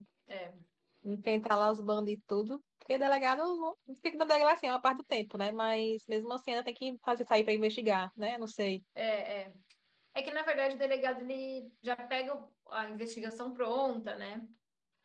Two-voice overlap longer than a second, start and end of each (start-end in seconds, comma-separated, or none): none